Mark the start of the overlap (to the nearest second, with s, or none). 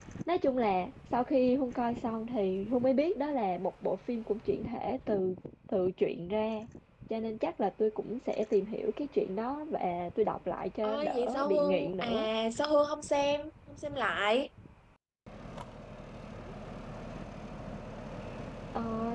11 s